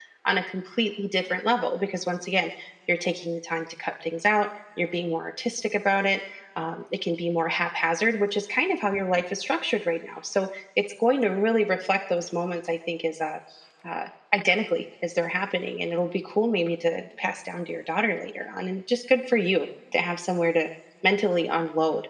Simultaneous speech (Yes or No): No